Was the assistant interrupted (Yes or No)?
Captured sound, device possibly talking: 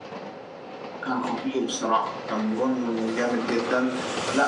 No